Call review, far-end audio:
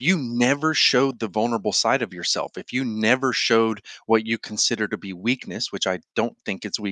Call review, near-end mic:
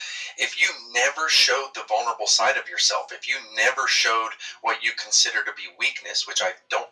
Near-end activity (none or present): none